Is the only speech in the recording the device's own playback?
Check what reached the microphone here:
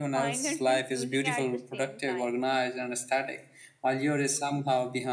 Yes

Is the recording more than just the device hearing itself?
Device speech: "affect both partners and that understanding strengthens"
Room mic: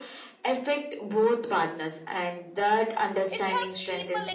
Yes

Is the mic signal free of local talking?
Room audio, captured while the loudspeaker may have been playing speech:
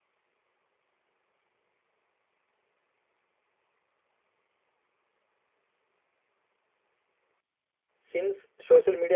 No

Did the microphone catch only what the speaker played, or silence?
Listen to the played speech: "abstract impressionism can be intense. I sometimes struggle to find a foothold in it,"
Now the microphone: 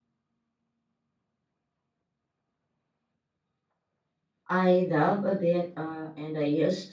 No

